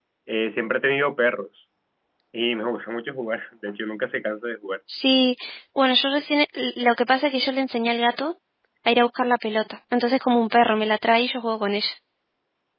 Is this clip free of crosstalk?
Yes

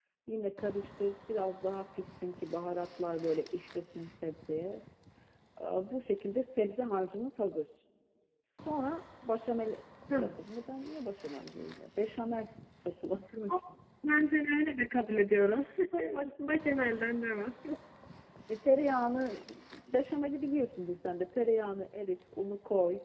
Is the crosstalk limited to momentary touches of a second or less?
Yes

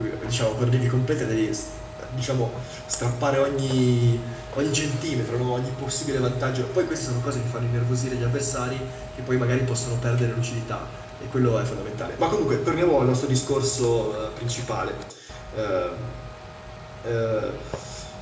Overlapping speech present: No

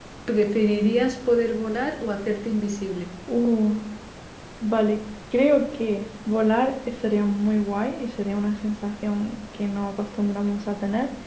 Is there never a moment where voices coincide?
Yes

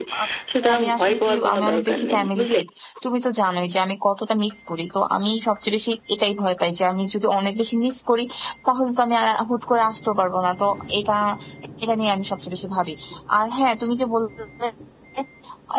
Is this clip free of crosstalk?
No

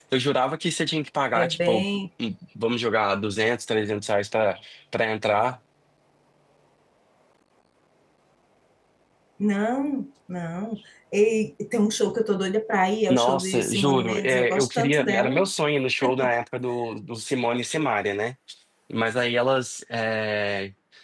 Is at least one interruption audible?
Yes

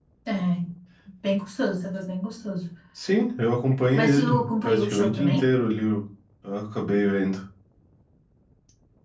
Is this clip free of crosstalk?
No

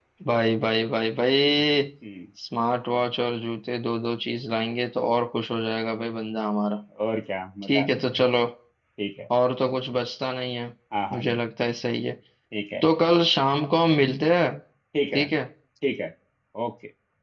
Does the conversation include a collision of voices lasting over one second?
No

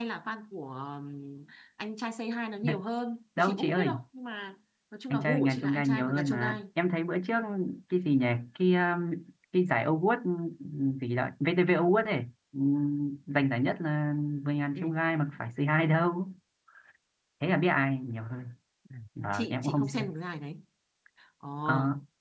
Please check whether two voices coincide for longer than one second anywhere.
Yes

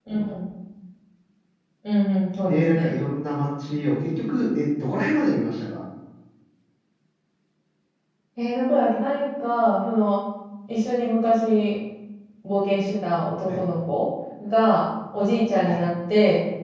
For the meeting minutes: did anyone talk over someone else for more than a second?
No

